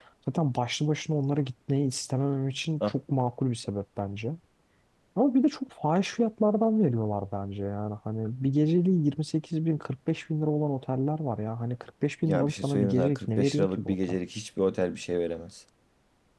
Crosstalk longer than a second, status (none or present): present